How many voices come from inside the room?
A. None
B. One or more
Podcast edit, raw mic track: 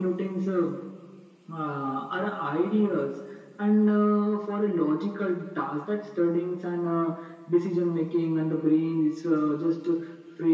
A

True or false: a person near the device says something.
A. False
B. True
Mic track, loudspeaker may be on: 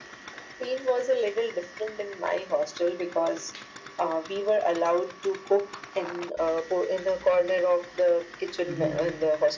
B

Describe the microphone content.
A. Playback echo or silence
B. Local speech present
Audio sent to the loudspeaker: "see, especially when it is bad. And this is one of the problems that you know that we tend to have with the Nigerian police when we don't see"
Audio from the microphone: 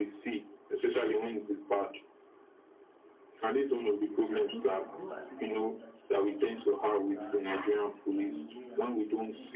B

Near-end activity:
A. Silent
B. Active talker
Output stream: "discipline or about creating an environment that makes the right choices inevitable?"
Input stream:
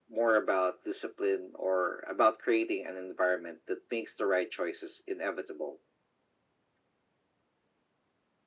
A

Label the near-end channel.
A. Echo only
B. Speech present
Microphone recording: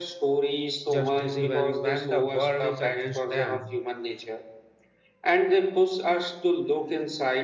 B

